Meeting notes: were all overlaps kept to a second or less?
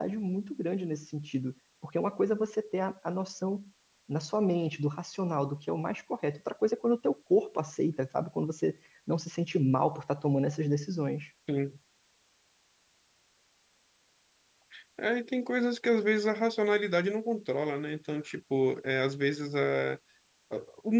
Yes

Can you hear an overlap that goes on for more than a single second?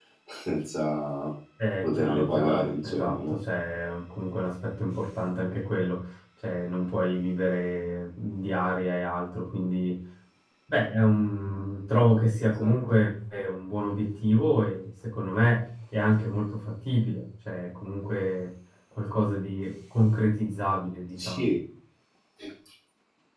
Yes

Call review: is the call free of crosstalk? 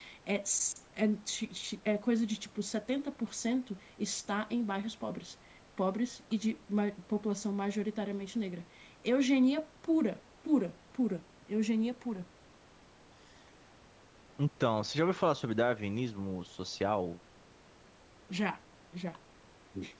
Yes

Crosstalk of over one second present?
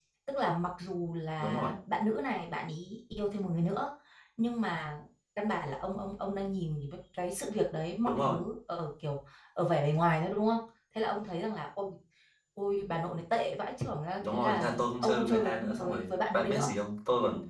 Yes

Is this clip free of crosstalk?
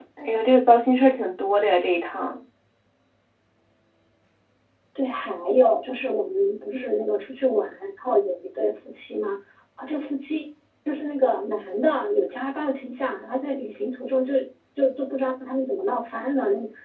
Yes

